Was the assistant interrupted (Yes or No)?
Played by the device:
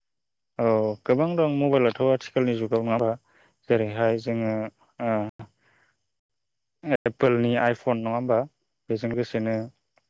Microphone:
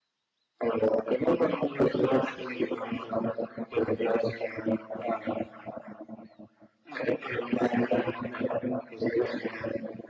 No